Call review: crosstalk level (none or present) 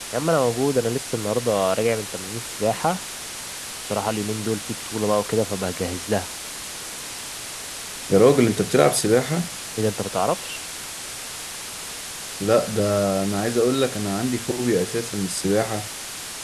none